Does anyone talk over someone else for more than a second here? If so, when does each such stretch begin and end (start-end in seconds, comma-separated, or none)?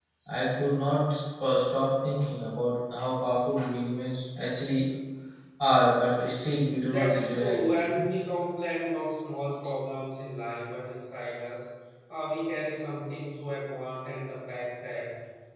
6.8-8.1